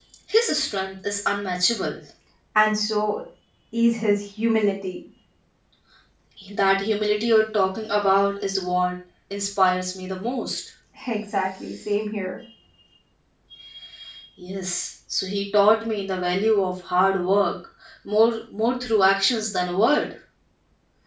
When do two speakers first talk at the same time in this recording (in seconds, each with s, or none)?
none